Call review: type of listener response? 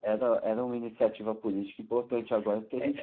taking over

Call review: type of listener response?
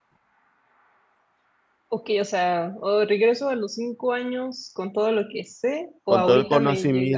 taking over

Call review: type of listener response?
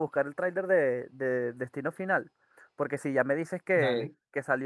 listening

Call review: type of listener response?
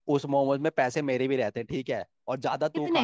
listening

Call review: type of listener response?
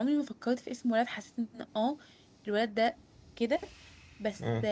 listening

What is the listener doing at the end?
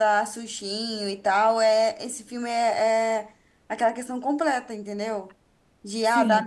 listening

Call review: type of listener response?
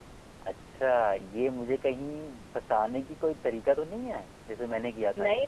taking over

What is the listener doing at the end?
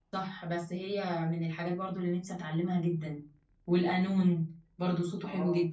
taking over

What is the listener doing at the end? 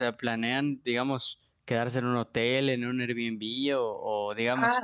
listening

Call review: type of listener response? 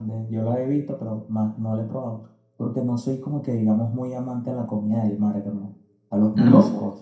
listening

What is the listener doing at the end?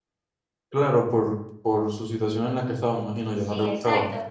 taking over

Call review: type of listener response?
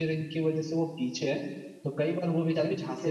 listening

